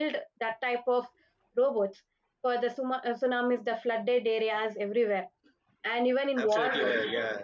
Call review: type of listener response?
taking over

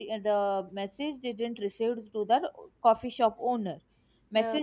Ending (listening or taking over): listening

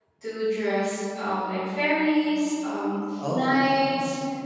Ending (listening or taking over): listening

